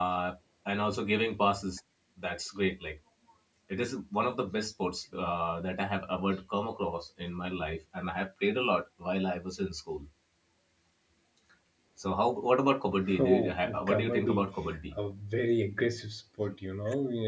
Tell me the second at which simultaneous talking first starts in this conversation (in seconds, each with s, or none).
13.1 s